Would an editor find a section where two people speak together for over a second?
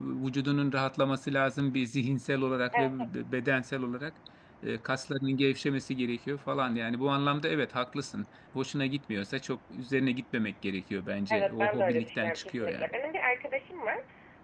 Yes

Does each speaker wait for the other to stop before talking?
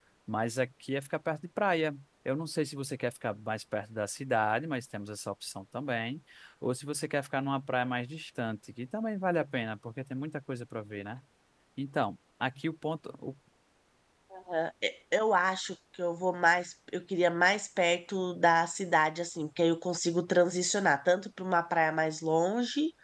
Yes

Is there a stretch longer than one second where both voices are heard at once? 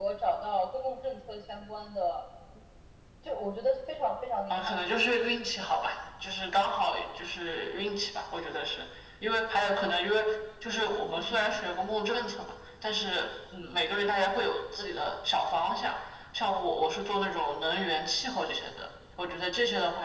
No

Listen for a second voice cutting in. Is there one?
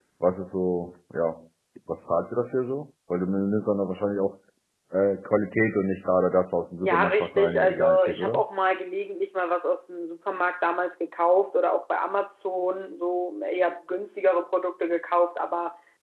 Yes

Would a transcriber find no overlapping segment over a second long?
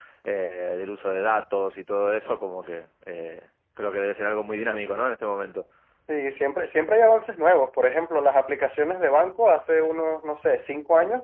Yes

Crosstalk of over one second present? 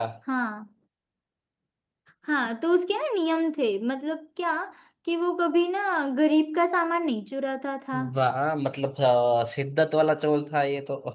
No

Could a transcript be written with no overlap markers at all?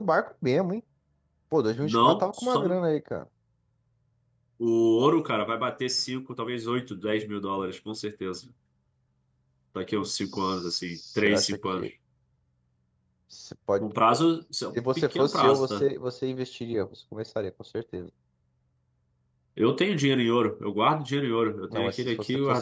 No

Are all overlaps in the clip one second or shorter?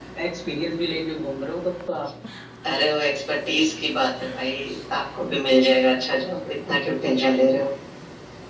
Yes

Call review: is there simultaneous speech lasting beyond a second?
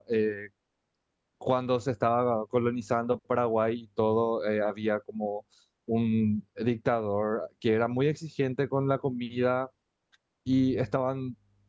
No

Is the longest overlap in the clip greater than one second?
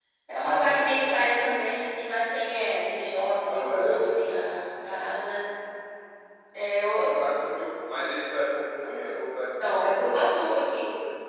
Yes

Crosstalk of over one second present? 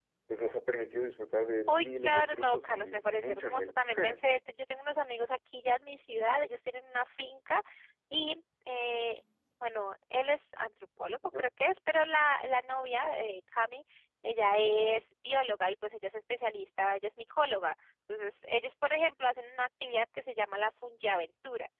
Yes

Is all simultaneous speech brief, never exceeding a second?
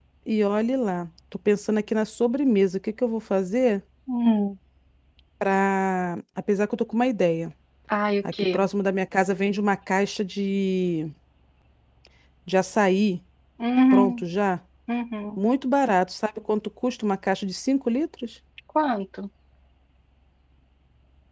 Yes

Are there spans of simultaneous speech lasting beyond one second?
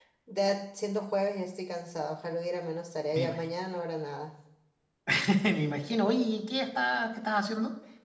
No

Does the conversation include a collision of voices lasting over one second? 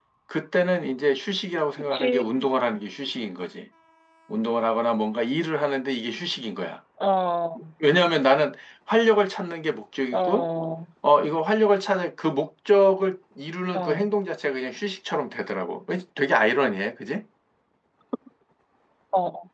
No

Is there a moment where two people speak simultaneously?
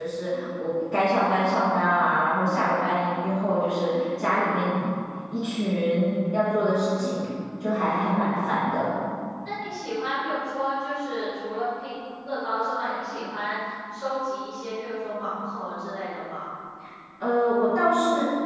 No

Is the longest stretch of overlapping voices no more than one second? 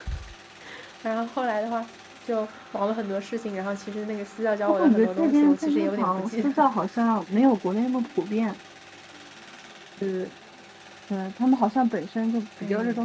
No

